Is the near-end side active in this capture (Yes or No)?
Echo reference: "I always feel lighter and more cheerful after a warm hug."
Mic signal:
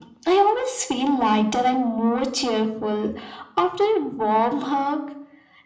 No